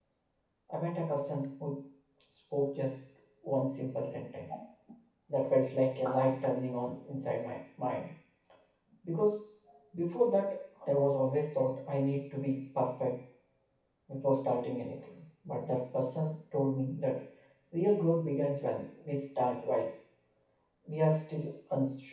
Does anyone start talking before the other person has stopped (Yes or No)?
No